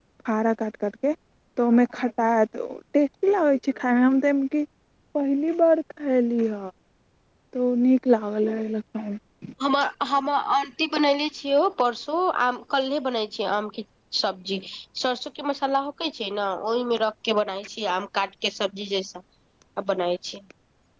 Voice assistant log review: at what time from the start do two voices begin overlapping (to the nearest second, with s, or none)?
none